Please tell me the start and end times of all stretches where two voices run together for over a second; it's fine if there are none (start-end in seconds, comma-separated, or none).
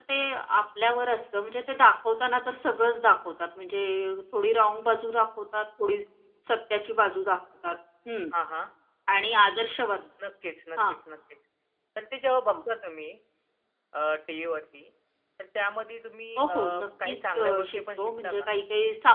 17.1-18.5